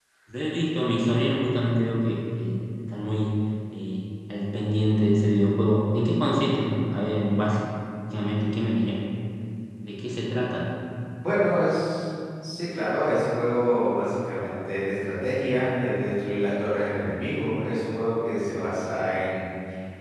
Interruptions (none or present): none